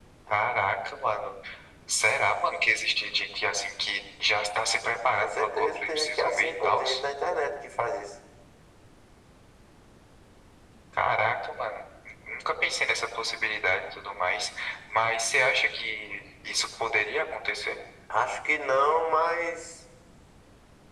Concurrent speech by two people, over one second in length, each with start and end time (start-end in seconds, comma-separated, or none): 5.2-6.8